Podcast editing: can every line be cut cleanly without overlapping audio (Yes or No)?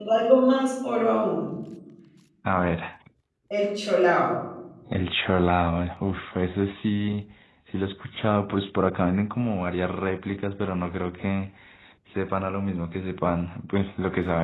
Yes